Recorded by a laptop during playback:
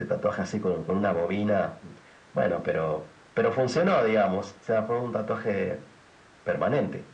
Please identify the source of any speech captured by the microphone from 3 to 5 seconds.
echo only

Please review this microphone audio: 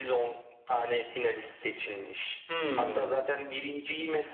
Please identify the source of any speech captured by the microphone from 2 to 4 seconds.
both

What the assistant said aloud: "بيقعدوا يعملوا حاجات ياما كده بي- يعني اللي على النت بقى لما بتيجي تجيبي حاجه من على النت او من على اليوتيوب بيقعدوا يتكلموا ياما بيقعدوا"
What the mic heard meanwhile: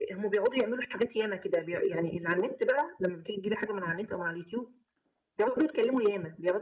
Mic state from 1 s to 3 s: echo only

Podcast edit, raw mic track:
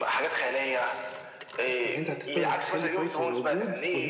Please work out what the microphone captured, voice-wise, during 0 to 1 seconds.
echo only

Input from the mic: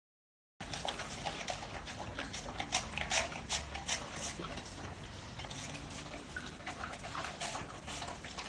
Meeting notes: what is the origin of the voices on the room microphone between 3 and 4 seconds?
neither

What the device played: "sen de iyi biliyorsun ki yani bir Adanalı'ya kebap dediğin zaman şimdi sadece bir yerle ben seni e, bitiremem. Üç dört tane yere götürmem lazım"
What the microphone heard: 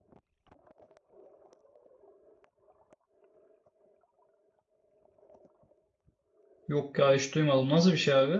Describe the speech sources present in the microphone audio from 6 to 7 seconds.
user only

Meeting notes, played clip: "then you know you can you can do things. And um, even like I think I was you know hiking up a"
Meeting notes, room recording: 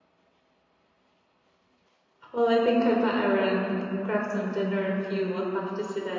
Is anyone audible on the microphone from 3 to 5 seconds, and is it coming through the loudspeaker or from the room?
user only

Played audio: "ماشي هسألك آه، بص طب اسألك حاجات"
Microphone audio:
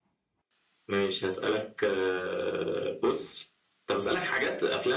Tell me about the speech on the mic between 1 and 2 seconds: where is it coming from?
echo only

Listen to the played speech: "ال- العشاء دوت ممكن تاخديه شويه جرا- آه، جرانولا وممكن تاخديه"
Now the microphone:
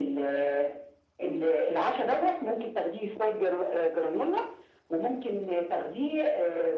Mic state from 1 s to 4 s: echo only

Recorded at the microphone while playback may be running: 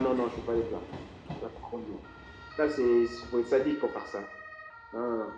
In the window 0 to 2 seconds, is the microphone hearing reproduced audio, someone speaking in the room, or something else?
echo only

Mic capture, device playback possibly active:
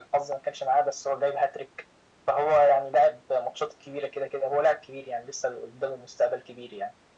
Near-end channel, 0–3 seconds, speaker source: echo only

